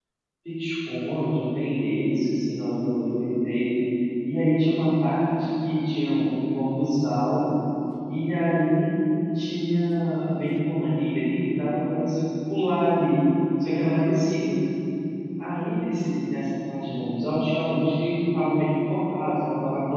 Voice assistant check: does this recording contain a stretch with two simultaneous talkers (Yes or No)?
No